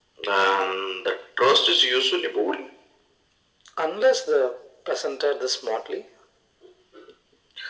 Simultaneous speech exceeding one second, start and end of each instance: none

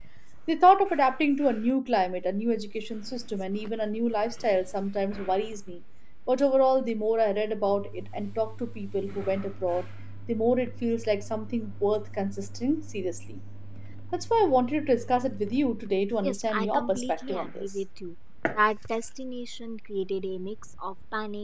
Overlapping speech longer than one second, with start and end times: 16.2-17.7

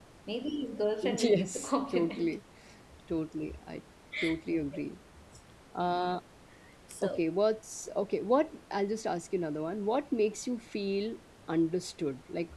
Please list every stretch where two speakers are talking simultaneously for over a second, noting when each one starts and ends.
1.0-2.4

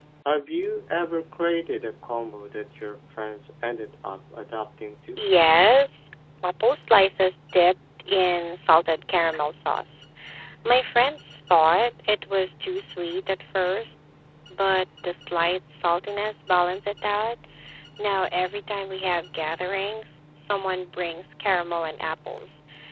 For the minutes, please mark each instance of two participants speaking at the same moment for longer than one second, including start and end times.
none

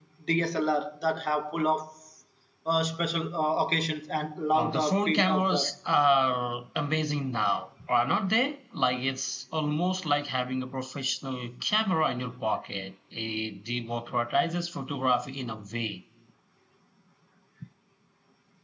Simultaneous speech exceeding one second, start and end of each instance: 4.5-5.7

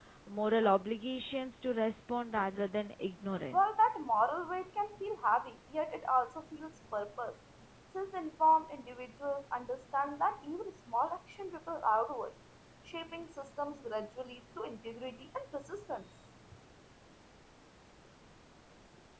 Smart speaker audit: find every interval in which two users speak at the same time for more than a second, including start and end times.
none

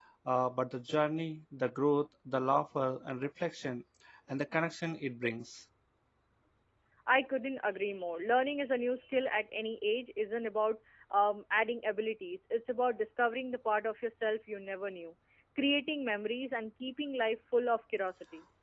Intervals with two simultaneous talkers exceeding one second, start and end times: none

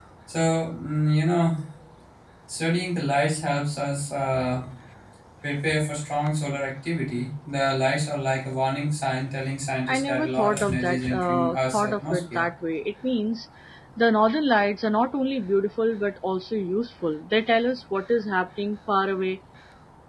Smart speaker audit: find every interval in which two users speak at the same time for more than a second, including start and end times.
9.9-12.4

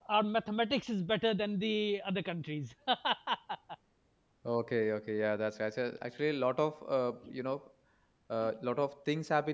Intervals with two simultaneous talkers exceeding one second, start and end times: none

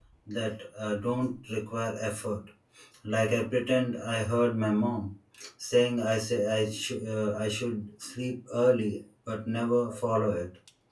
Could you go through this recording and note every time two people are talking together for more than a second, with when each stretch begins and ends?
none

